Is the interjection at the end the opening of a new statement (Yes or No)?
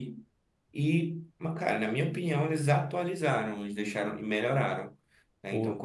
No